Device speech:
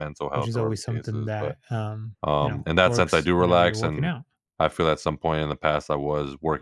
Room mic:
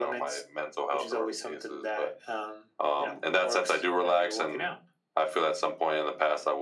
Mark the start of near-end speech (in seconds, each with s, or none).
none